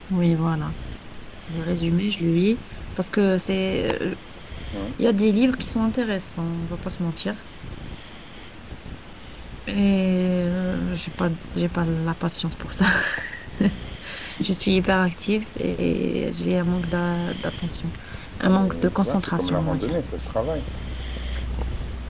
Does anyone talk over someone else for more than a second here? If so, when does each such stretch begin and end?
18.4-19.9

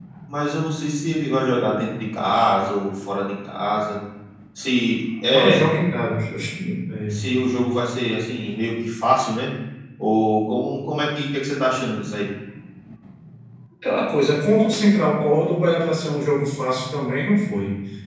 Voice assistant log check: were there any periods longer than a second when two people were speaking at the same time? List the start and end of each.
none

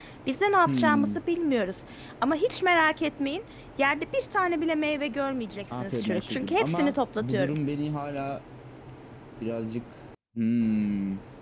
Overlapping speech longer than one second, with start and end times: 5.8-7.6

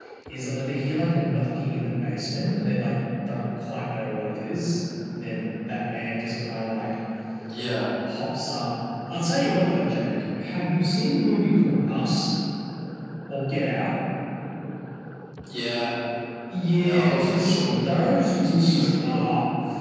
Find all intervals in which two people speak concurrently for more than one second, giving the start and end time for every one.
16.8-19.2

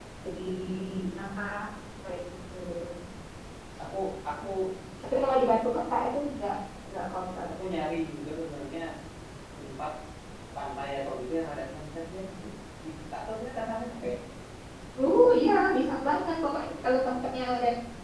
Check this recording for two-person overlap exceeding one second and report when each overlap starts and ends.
none

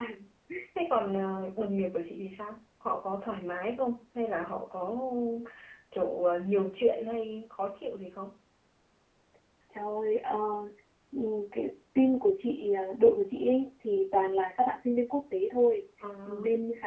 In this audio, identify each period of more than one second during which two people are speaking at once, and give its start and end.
none

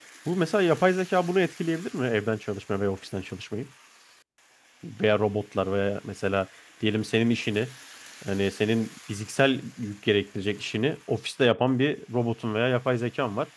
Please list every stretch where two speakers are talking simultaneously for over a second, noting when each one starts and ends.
none

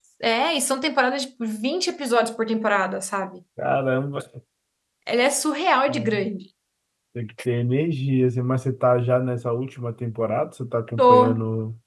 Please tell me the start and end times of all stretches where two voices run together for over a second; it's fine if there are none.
none

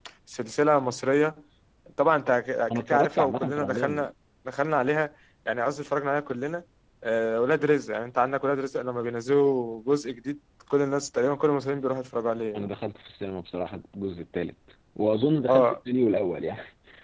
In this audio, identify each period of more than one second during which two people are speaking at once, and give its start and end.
2.7-4.0

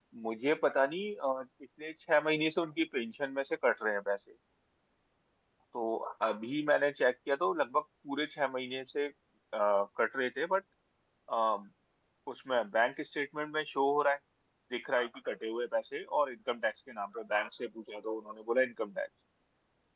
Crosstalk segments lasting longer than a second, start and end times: none

